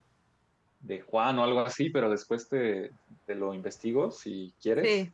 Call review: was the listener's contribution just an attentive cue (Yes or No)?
Yes